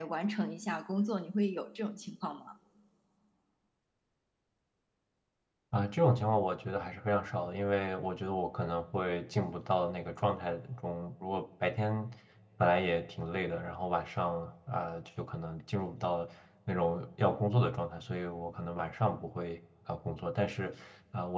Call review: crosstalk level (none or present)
none